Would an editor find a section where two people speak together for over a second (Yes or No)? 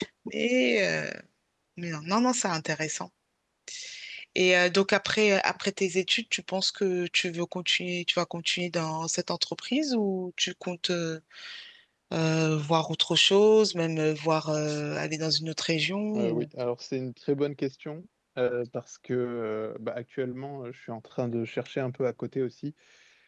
No